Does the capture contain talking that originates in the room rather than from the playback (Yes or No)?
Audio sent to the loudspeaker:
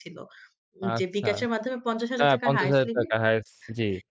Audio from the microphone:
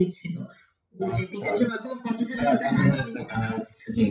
No